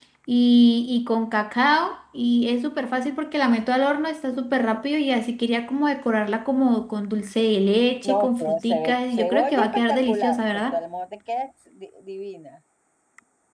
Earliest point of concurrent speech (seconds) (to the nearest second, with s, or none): 8 s